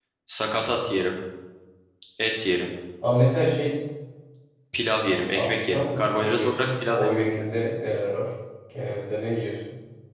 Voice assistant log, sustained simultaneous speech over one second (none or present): present